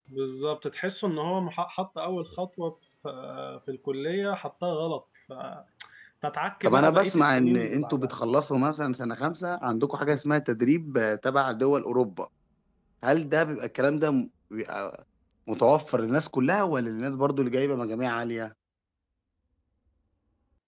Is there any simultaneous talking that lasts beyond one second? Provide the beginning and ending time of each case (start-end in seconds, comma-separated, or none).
6.6-8.1